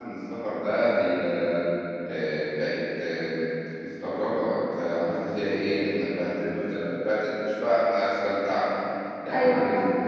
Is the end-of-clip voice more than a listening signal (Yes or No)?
No